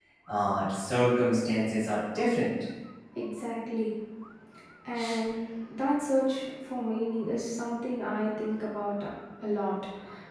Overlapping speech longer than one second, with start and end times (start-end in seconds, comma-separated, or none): none